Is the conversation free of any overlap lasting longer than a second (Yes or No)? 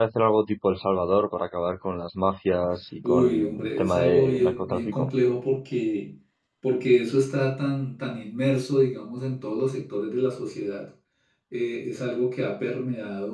No